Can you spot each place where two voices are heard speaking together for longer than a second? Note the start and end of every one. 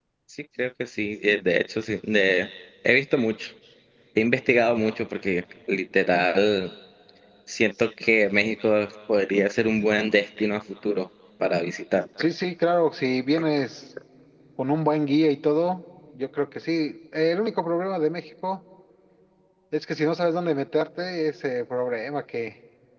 none

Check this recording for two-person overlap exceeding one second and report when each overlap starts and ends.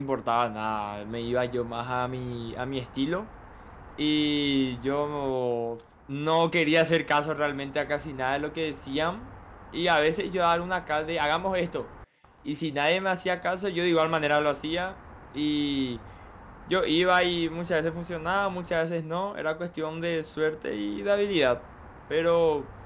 none

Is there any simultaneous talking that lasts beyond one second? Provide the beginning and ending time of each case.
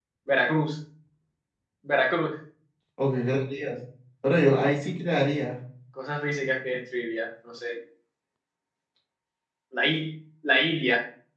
none

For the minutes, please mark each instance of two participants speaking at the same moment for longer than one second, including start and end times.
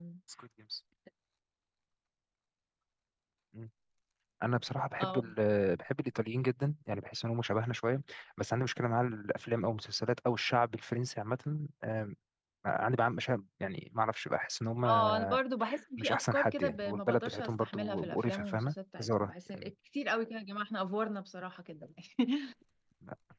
16.0-19.7

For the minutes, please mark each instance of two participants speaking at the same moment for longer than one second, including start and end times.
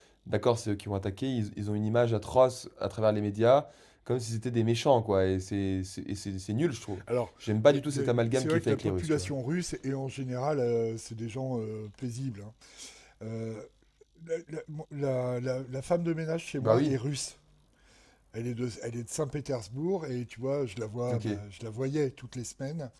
7.7-9.3

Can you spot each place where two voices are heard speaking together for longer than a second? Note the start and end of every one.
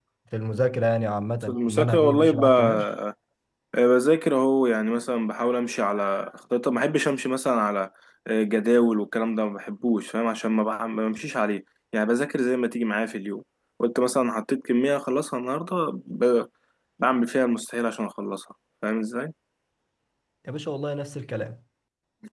1.5-2.8

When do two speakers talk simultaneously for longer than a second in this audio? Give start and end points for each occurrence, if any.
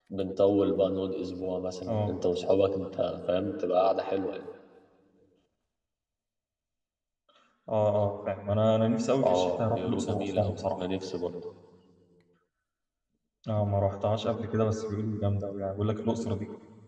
9.2-10.8

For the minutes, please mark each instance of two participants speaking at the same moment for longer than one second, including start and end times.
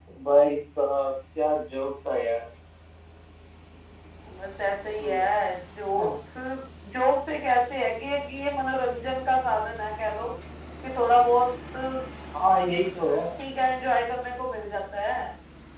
none

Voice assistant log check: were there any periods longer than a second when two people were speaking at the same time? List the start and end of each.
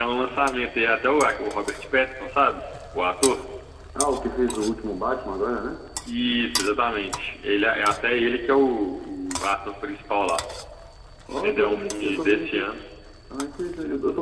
11.3-12.7

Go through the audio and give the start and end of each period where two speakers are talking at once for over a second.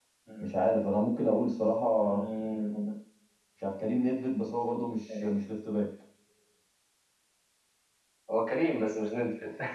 none

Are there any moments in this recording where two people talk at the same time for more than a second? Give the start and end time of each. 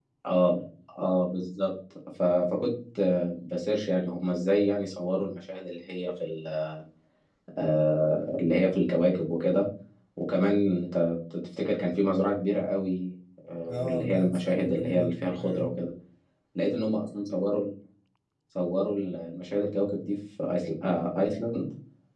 13.7-15.7

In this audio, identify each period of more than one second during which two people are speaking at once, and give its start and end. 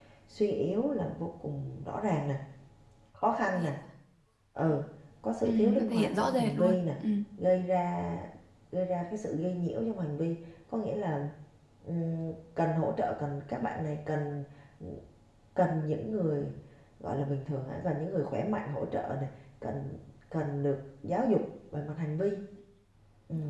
5.4-6.8

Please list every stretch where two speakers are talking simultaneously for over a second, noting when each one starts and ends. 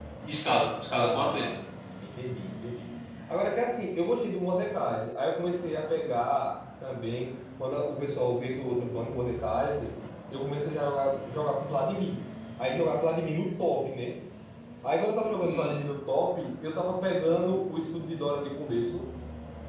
none

